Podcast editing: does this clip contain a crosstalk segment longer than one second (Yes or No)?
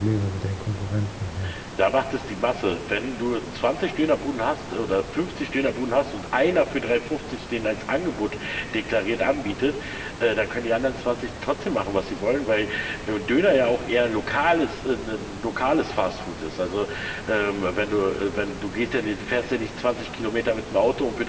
No